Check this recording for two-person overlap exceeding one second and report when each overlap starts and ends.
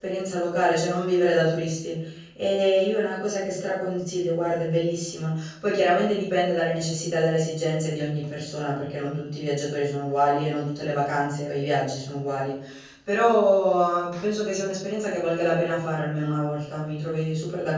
none

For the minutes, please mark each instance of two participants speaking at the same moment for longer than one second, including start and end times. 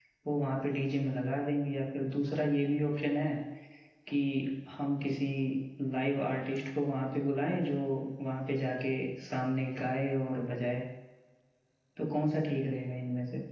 none

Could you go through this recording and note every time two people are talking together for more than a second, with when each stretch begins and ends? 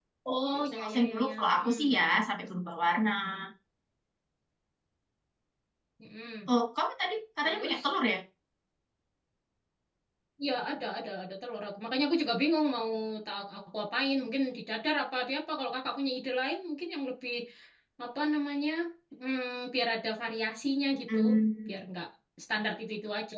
0.6-2.0

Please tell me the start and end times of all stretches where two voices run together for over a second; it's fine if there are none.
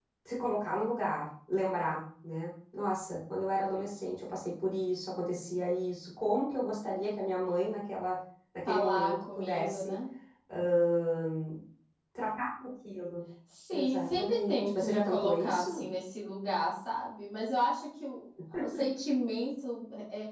8.7-10.0, 13.7-15.8

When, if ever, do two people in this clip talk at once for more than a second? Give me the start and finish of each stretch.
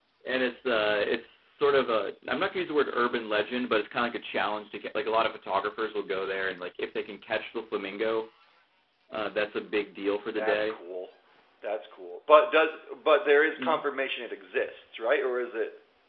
none

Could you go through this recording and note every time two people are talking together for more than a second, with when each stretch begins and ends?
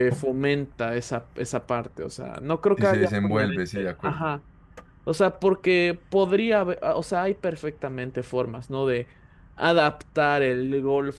2.8-4.3

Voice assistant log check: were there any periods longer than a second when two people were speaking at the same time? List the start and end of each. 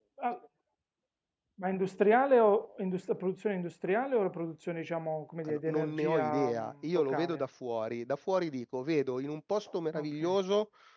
5.5-7.4

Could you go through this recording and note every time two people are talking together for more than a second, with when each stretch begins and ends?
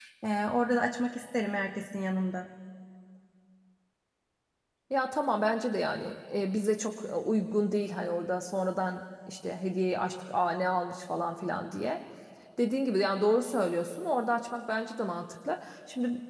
none

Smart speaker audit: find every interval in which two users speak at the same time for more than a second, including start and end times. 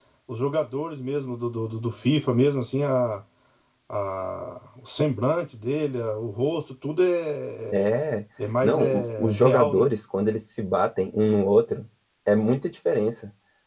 8.6-9.9

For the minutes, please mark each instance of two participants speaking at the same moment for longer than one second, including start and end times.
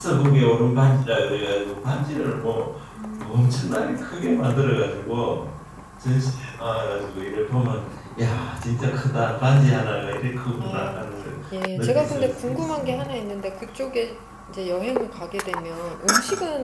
11.7-13.0

